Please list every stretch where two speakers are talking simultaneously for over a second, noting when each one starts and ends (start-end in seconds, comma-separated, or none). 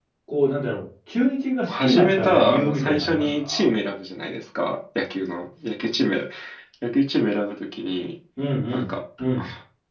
1.7-3.7